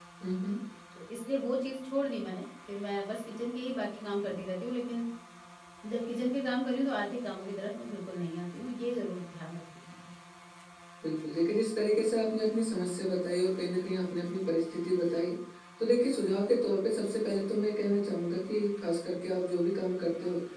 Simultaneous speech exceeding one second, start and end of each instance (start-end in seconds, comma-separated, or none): none